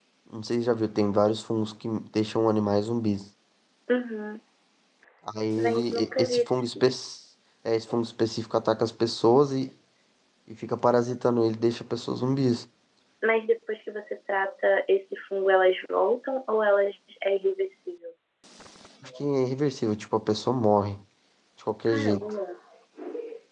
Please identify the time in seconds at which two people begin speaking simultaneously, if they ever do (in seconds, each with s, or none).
5.6 s